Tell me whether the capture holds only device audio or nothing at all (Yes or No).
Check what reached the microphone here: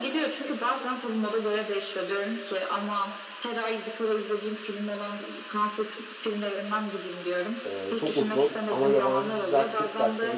No